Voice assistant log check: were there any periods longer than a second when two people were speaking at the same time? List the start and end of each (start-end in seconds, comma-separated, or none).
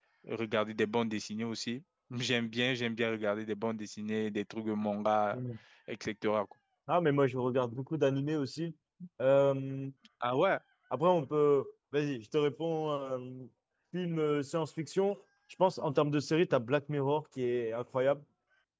none